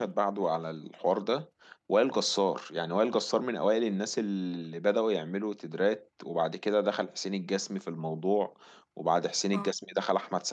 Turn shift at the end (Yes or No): No